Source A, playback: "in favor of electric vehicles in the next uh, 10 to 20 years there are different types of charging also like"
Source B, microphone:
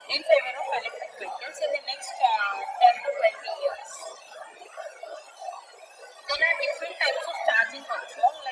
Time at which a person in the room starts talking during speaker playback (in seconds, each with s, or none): none